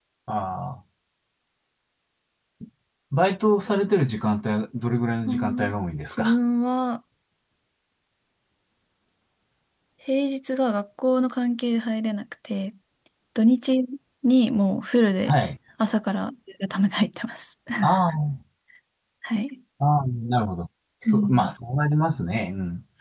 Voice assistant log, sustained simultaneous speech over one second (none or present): none